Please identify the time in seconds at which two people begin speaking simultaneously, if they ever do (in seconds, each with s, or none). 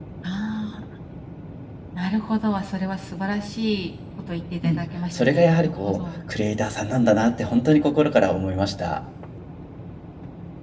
4.6 s